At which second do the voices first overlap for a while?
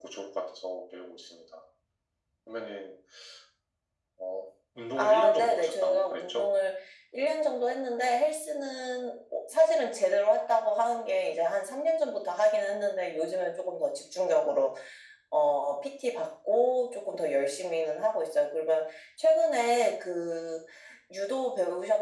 5.0 s

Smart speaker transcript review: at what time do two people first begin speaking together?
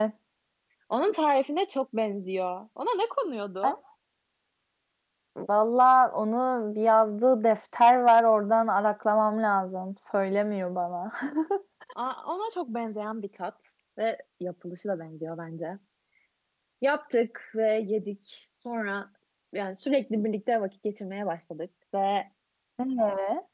none

